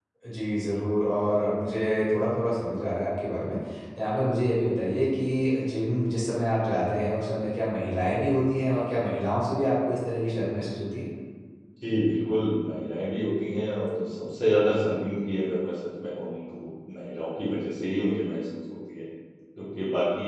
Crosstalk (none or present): none